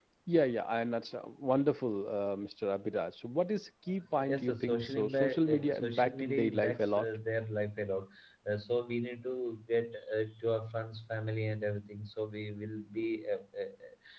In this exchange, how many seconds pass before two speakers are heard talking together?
4.3 s

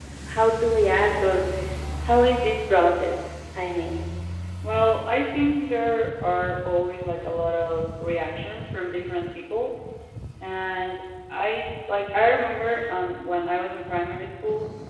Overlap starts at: none

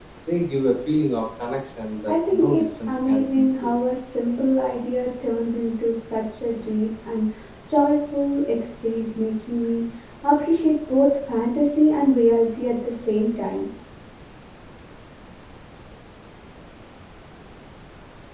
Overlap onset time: 2.1 s

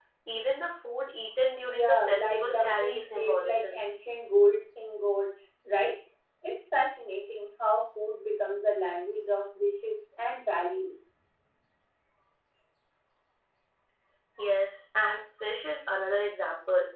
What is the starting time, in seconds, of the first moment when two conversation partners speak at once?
1.6 s

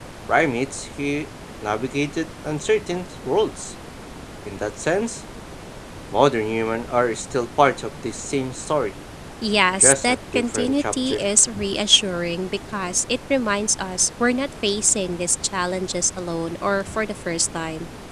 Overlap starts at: 9.8 s

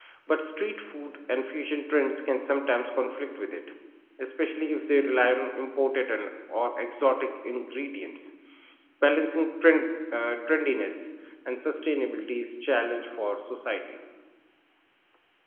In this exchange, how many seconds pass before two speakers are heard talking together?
none

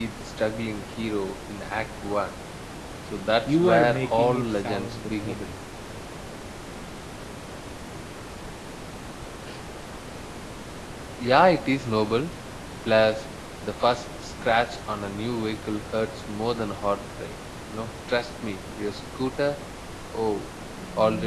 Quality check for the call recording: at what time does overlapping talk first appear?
3.5 s

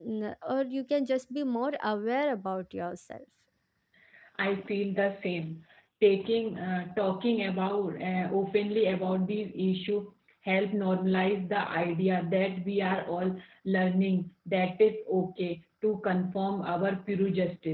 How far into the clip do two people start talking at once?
none

